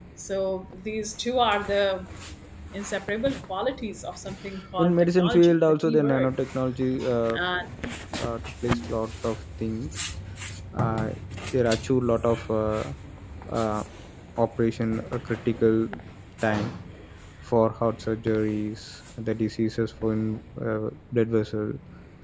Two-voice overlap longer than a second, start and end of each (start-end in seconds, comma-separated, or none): 4.8-6.3